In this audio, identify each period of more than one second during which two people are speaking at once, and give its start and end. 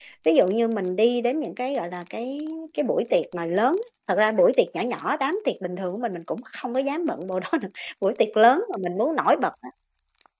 none

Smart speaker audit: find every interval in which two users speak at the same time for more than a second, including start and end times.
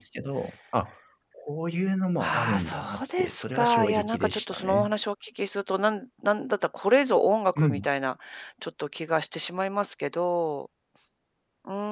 2.2-4.9

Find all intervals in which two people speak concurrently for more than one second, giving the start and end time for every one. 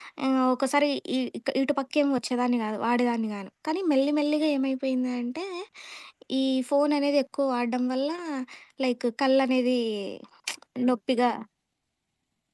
none

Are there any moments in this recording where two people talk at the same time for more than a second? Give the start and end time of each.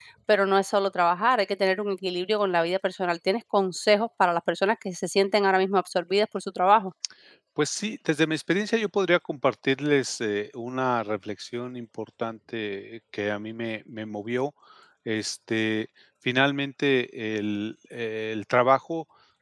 none

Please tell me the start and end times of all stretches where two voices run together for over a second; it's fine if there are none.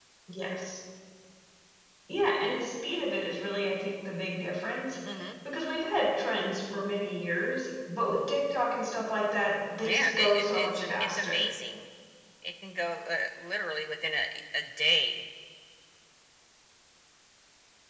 9.9-11.5

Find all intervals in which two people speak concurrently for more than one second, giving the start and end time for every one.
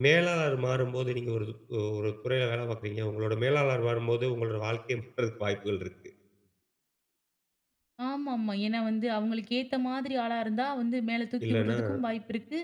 none

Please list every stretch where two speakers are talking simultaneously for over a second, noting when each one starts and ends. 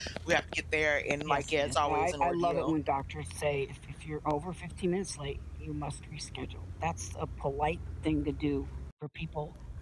1.3-2.7

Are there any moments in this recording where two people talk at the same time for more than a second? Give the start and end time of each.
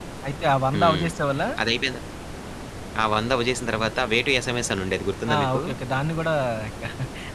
none

